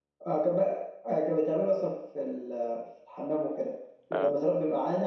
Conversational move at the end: listening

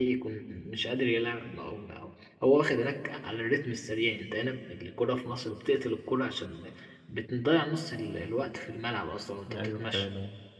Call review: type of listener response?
taking over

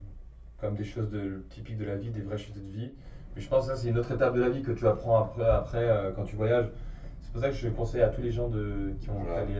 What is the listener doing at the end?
listening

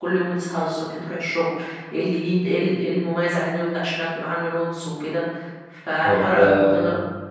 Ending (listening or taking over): taking over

